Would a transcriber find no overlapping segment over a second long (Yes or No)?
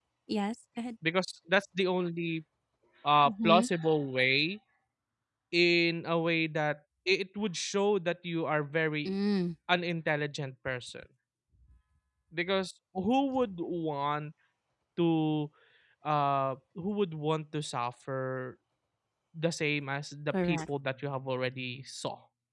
Yes